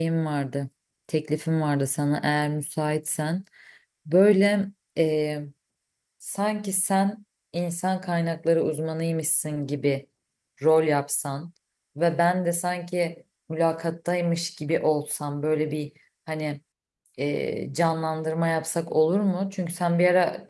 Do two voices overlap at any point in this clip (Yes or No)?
No